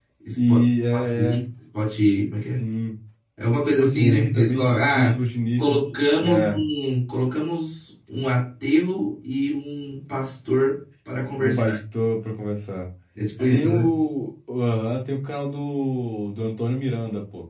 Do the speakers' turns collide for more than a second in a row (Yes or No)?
Yes